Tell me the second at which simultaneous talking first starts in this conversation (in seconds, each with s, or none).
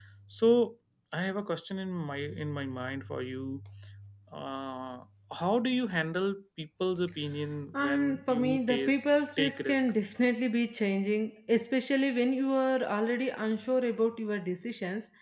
7.7 s